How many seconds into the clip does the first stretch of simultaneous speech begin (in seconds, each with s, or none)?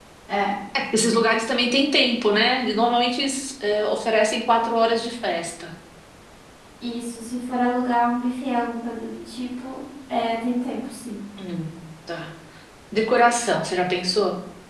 none